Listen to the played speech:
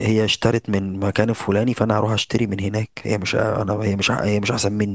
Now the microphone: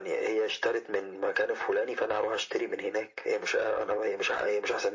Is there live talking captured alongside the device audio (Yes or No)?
No